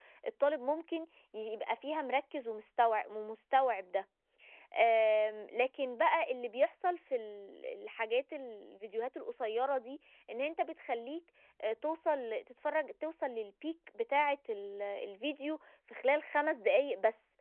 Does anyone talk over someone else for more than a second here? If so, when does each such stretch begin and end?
none

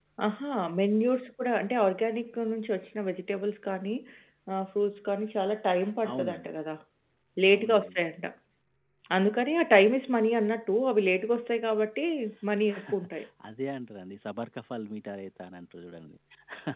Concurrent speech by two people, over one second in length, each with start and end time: none

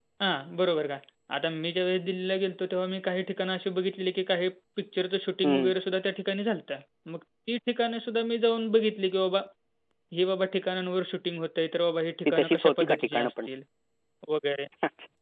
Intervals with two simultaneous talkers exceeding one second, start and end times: 12.2-13.5

